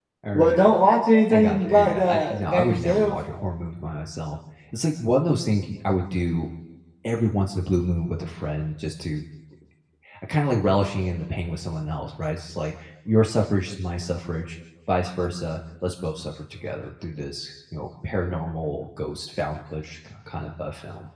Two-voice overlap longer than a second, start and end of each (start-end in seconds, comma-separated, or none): 1.3-3.2